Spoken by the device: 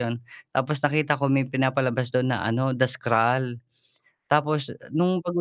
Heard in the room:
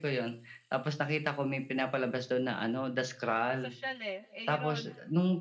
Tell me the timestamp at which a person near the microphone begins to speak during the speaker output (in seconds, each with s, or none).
3.2 s